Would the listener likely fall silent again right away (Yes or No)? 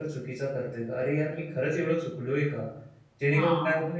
Yes